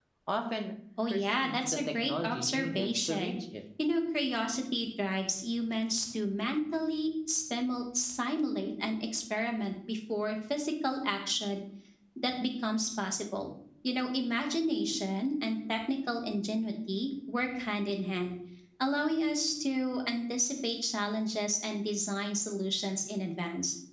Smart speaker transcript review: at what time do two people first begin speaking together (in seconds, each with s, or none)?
1.1 s